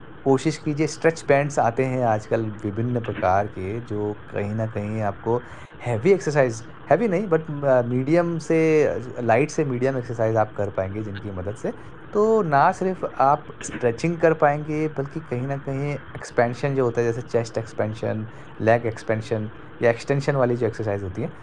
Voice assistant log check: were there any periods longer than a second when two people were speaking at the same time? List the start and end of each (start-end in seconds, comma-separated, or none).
none